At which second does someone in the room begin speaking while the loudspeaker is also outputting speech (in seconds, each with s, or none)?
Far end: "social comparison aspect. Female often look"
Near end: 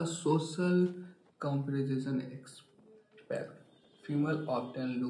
none